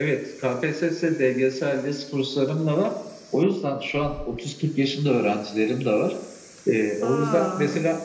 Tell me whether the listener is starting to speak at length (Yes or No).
No